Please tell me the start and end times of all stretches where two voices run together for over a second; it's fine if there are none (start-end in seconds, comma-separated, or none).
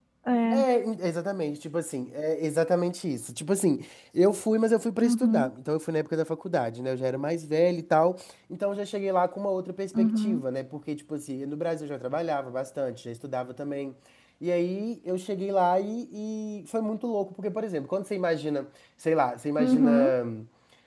none